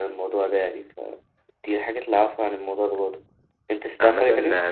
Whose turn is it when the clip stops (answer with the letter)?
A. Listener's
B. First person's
A